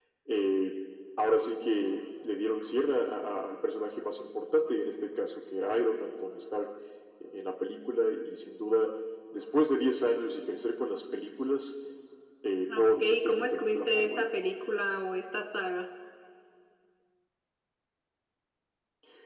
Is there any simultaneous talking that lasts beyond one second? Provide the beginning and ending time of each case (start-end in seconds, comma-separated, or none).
12.8-14.3